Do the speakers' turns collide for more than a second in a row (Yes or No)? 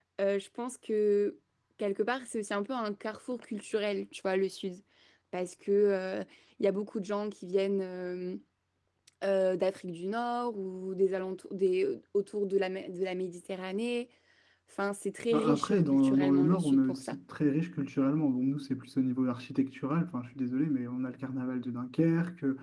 Yes